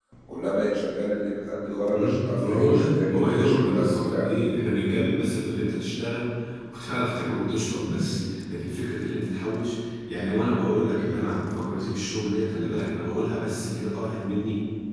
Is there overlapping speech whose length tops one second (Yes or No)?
Yes